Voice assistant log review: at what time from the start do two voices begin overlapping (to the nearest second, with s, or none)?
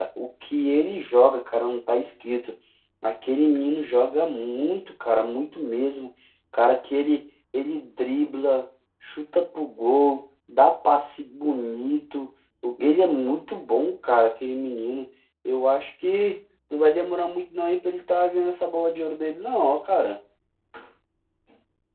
none